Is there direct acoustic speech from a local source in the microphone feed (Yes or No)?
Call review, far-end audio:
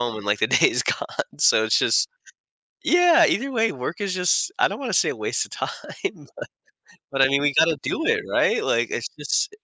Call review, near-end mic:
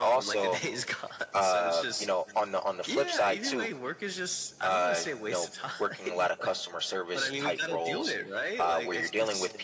Yes